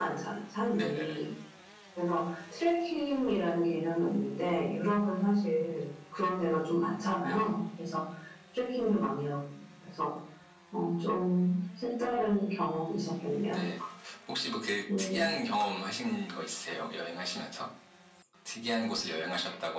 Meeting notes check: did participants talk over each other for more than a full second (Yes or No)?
No